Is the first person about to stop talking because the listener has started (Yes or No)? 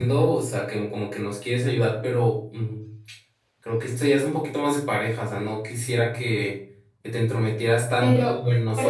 Yes